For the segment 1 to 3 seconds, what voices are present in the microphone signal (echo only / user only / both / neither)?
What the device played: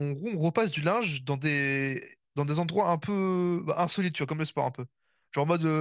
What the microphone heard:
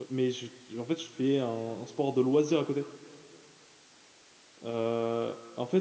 user only